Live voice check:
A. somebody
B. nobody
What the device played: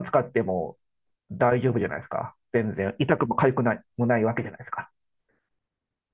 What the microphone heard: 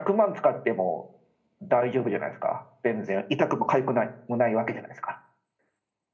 B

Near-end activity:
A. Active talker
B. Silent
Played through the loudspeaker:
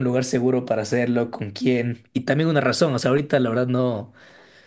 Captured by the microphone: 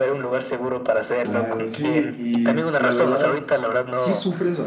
A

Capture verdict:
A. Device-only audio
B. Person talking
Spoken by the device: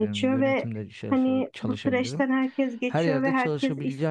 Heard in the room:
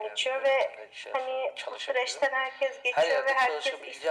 A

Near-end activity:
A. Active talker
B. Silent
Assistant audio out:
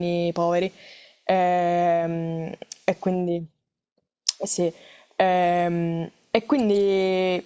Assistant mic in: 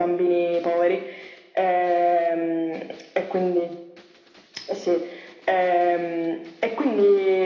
B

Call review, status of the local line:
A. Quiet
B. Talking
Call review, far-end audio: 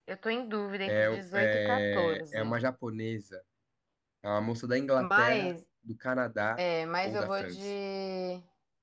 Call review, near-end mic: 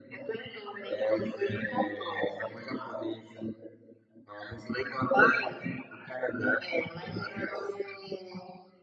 A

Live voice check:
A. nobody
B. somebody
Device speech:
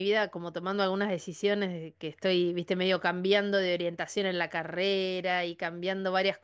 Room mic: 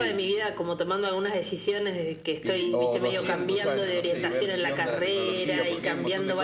B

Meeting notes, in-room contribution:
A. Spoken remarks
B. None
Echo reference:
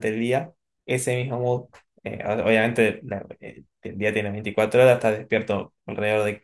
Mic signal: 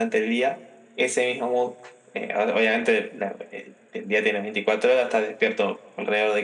B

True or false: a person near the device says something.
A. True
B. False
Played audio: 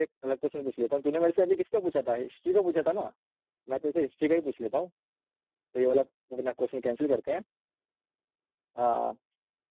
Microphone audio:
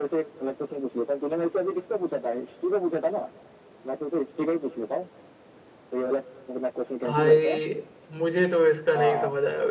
A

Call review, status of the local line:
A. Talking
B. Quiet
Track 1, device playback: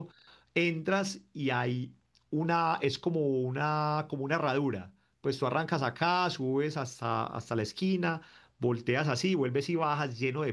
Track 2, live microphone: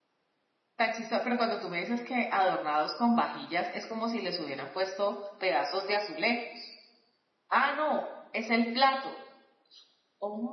A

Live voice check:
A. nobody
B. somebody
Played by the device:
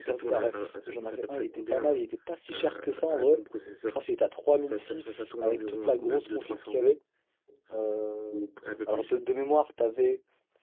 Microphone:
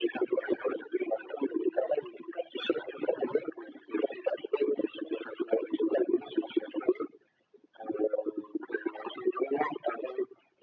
A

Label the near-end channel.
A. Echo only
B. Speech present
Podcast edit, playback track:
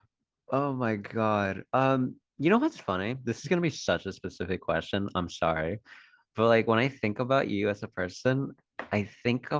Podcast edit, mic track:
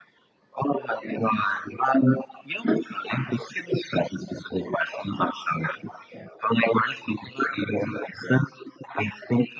A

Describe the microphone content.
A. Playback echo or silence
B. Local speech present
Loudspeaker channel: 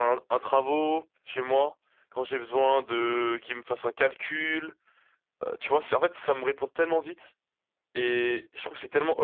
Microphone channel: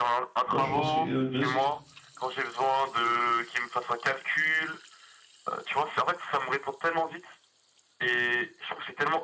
B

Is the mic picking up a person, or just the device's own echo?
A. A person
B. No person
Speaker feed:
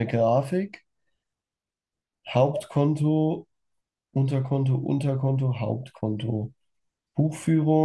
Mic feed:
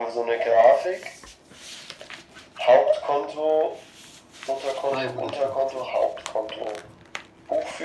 A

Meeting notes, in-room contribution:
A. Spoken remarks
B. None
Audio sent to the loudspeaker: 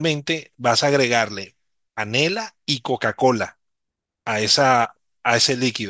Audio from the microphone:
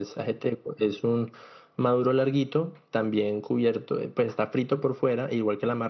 A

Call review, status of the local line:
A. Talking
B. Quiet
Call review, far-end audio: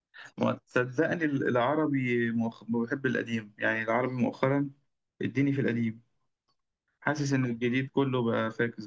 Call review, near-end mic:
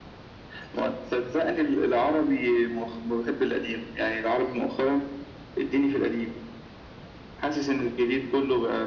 B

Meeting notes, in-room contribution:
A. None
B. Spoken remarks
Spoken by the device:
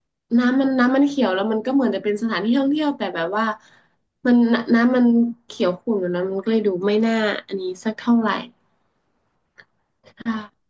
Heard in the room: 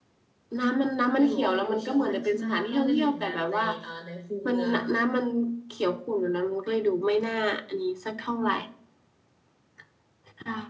B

